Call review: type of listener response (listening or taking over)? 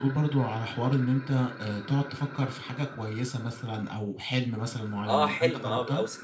taking over